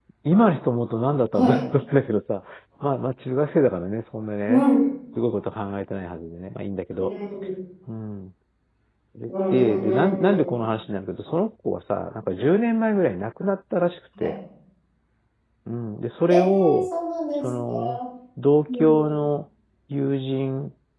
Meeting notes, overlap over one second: present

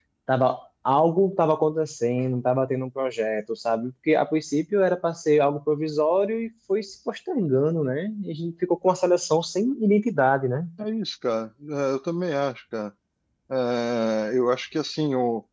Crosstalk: none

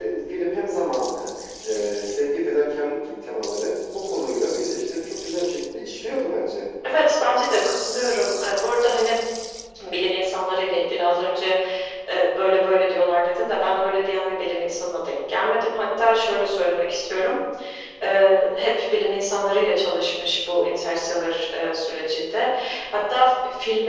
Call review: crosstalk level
none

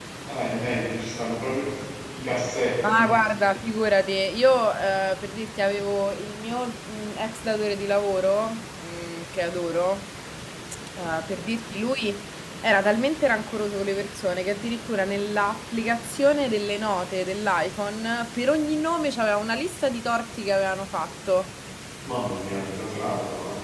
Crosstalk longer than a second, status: none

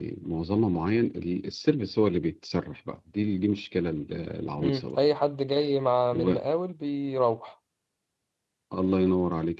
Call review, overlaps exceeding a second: none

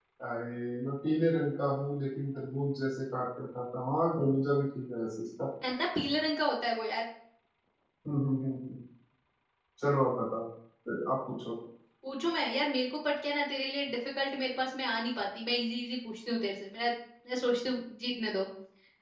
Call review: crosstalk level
none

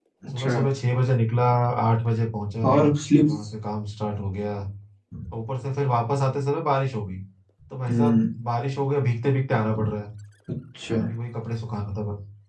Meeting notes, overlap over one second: none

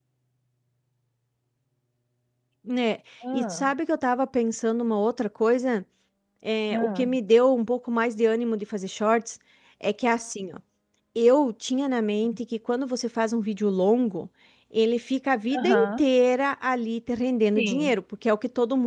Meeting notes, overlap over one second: none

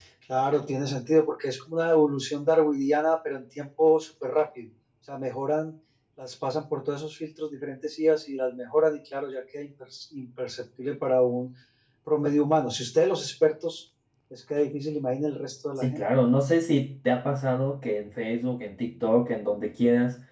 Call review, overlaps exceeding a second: none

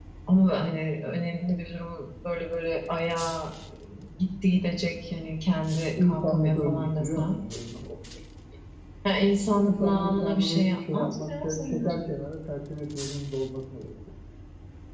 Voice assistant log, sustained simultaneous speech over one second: present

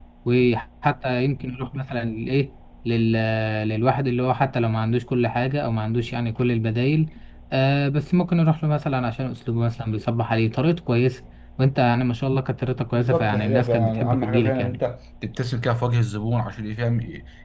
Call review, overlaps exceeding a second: present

